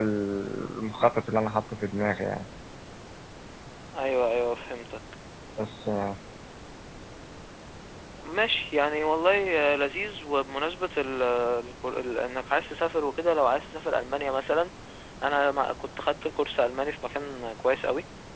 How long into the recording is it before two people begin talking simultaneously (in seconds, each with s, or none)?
none